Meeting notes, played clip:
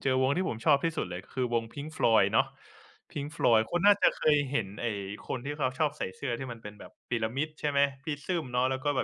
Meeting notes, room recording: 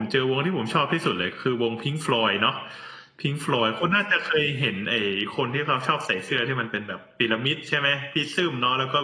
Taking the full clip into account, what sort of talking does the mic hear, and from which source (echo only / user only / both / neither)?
echo only